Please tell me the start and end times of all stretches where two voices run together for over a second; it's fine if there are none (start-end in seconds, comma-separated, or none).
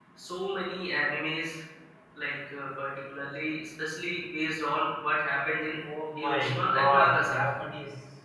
6.2-7.4